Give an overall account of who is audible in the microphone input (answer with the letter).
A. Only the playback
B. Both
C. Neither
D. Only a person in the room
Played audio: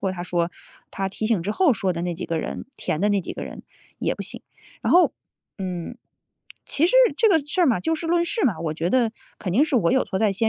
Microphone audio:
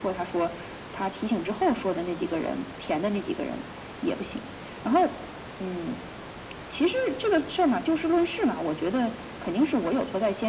A